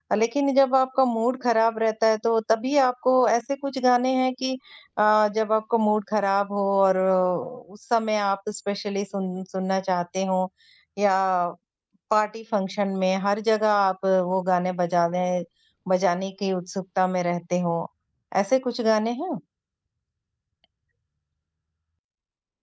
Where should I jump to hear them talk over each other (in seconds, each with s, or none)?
none